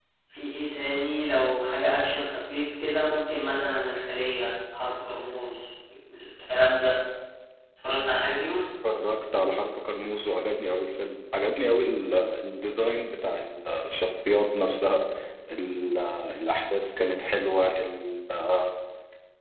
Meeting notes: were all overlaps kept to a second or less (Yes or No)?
Yes